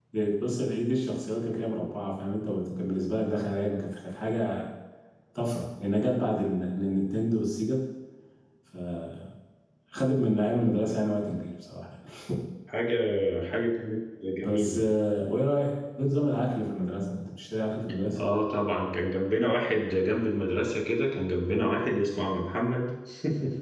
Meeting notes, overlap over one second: none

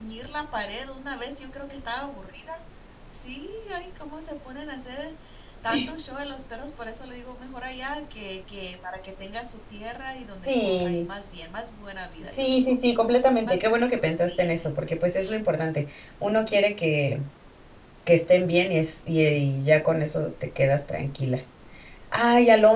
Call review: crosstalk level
present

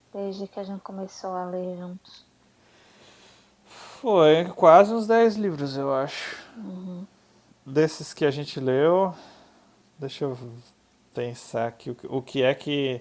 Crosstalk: none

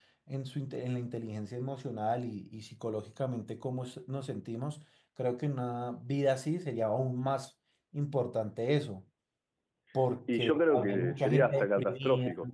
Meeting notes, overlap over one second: present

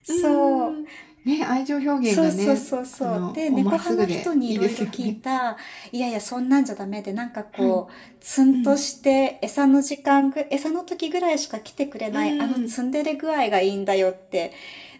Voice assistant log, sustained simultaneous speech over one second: present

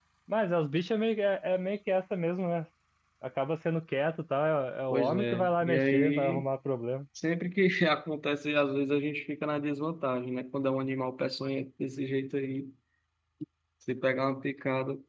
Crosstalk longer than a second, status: present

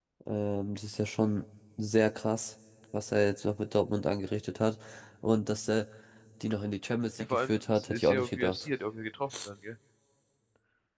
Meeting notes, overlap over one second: present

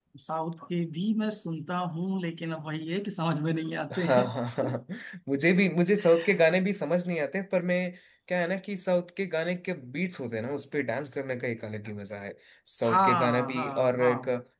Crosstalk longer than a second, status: present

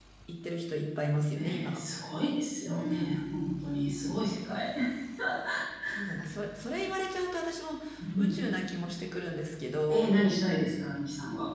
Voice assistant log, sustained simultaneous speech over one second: none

